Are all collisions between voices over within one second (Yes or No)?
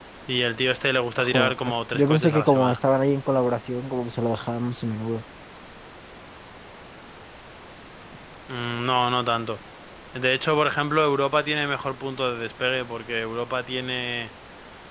No